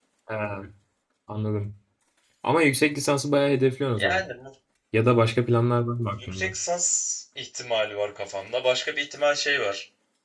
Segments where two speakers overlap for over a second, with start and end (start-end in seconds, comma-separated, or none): none